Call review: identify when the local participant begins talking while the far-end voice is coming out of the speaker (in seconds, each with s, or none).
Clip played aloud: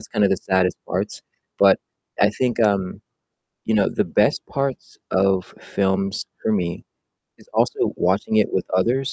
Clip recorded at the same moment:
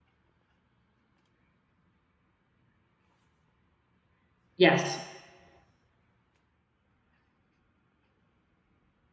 4.6 s